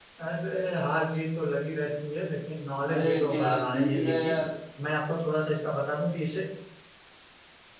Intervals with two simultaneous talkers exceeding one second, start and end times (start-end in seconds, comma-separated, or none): 2.9-4.3